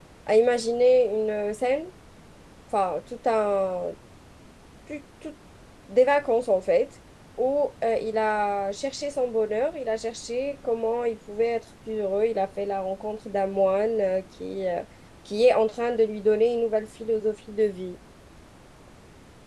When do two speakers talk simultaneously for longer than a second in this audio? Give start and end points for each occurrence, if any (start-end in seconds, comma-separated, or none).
none